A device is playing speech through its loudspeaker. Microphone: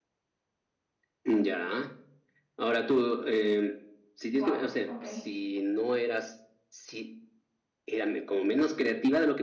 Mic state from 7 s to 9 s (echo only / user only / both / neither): echo only